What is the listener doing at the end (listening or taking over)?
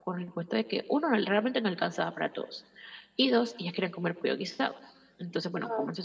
listening